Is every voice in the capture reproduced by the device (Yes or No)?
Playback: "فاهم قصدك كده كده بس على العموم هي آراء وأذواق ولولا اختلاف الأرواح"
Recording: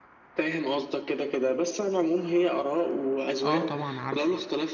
No